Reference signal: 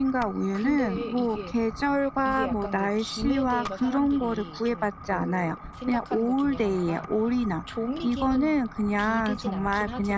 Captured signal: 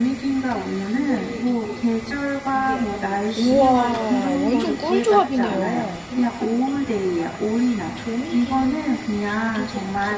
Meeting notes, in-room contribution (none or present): present